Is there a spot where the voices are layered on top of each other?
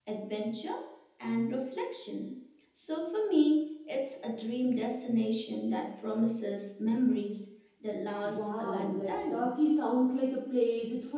Yes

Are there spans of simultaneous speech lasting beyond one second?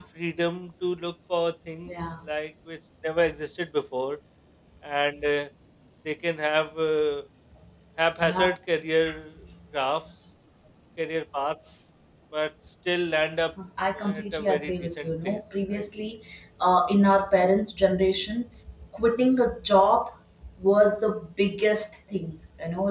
Yes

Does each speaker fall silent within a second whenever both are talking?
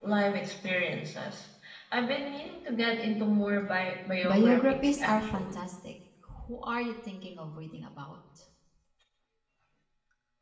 No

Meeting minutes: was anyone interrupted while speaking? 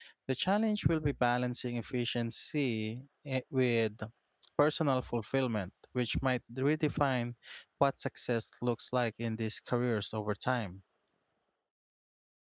No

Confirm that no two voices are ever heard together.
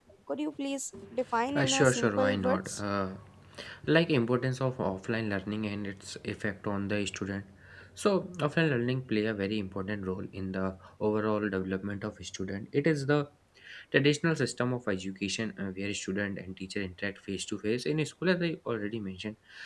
No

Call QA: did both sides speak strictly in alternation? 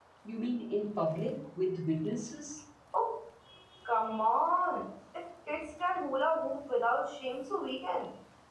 Yes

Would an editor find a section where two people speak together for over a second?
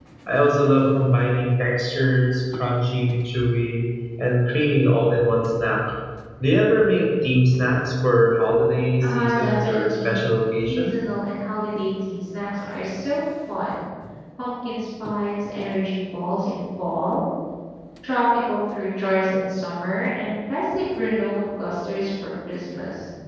Yes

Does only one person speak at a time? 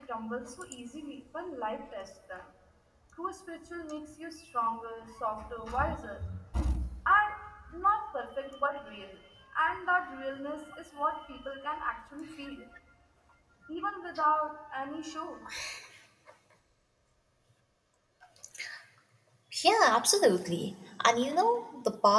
Yes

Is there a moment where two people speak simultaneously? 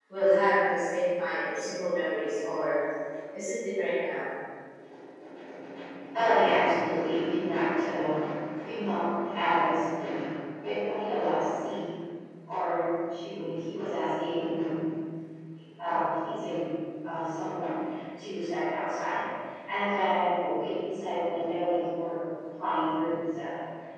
No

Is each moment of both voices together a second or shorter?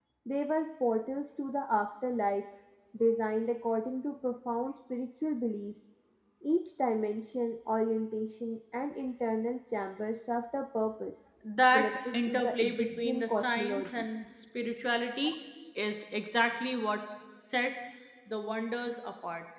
No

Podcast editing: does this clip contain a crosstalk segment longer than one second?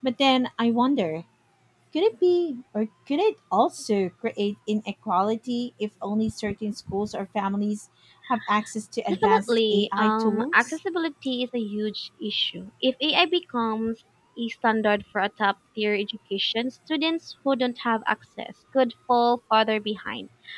Yes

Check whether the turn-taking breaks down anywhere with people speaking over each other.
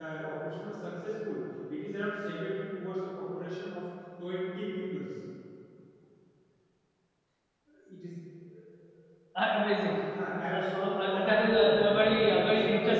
Yes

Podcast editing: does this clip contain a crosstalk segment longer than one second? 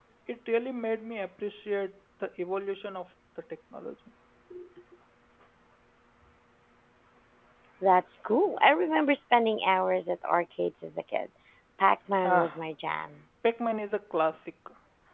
No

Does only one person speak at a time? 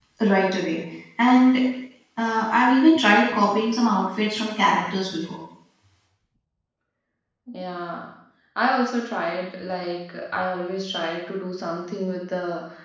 Yes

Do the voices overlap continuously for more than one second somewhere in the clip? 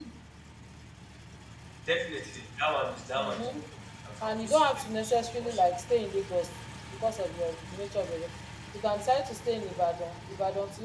Yes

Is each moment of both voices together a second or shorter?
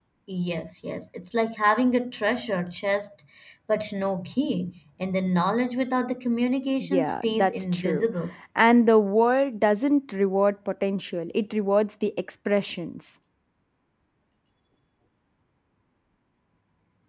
No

